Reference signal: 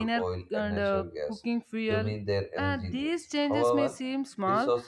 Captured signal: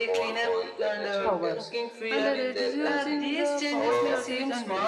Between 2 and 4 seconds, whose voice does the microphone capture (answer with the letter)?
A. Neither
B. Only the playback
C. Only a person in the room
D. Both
D